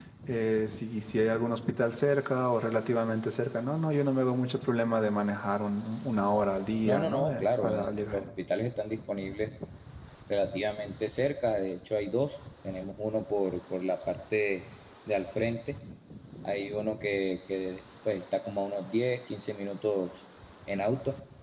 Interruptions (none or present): present